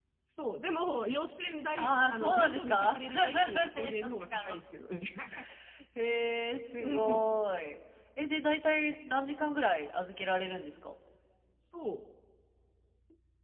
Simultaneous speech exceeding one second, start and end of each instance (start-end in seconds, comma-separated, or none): 1.8-4.6